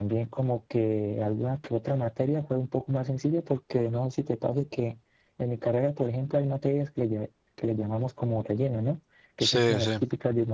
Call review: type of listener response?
listening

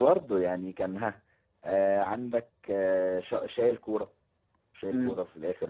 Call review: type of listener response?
taking over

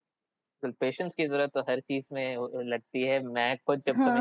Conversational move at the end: listening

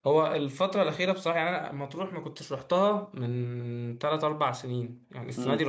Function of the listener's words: listening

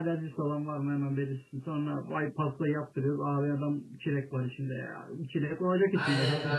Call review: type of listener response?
taking over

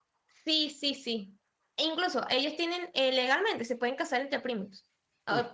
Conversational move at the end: listening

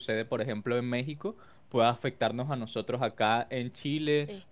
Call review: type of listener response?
listening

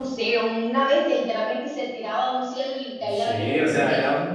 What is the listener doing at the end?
taking over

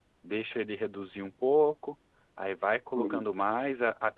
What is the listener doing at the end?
listening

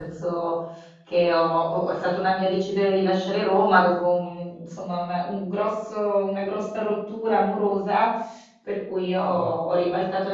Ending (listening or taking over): listening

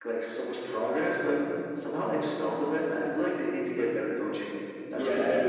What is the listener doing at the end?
taking over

